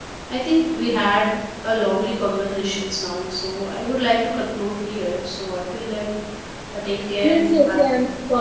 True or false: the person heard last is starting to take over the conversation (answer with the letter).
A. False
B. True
B